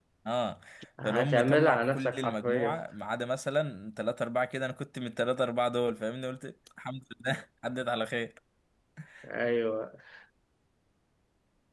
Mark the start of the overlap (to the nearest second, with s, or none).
1 s